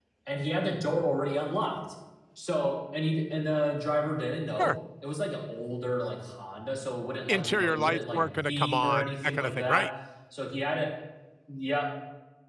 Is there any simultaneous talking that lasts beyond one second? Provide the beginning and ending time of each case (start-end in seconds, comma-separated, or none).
7.3-9.9